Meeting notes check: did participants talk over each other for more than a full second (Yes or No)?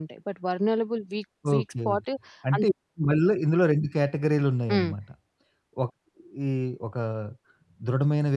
No